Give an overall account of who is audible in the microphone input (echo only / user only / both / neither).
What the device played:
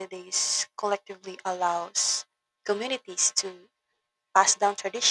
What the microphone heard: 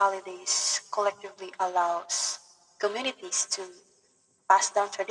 echo only